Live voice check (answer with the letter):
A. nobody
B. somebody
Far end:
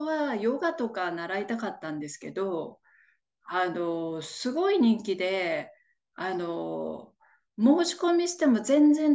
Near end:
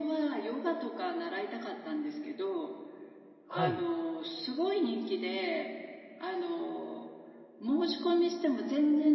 B